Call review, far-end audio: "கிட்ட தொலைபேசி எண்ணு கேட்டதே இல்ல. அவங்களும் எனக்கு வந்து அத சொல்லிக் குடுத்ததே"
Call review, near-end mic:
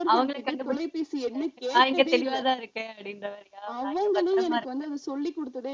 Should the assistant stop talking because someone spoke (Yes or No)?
Yes